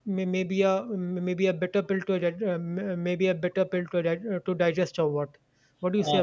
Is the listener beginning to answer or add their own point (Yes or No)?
Yes